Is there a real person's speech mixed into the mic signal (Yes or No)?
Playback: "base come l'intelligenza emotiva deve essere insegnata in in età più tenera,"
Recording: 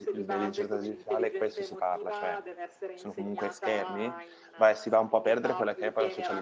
Yes